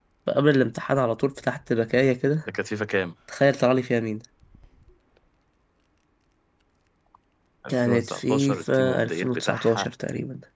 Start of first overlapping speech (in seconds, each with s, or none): 7.7 s